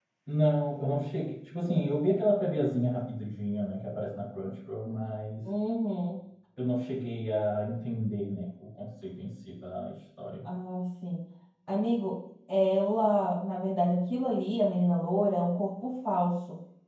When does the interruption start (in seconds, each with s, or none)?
none